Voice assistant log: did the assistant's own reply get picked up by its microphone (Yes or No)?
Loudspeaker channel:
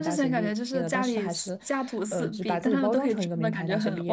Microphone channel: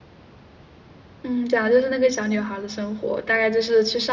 No